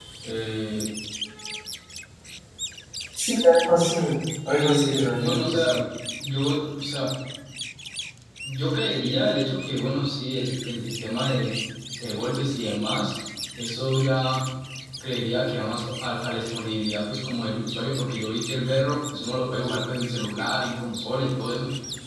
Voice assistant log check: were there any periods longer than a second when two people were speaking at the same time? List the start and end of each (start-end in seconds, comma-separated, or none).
4.5-5.8